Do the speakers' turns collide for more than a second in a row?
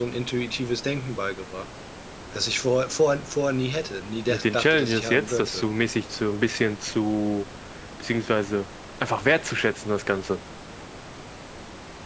Yes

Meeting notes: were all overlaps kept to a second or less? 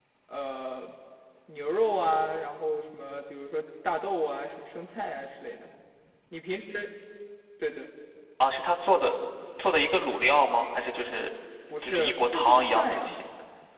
No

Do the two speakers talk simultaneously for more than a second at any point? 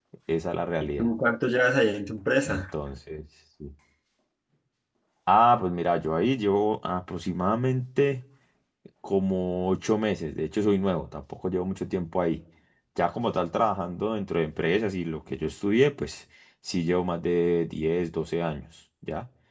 No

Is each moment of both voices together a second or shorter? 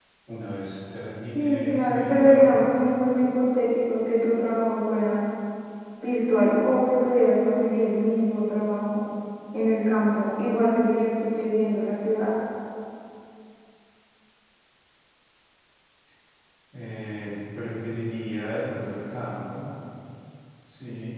No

